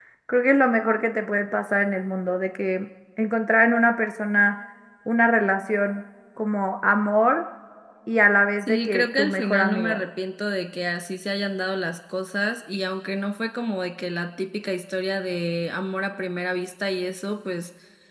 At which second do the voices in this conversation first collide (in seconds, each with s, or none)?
8.6 s